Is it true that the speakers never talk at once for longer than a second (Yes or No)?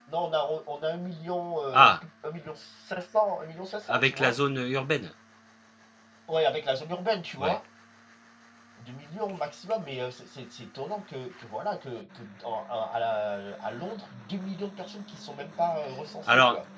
Yes